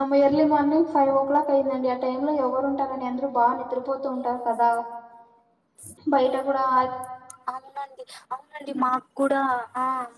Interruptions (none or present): none